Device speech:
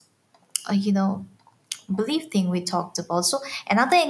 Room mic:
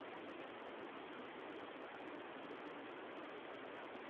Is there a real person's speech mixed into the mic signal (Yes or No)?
No